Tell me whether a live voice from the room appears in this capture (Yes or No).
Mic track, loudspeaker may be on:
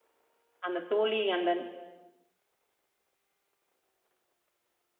Yes